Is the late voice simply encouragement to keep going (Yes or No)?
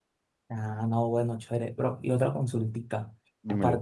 Yes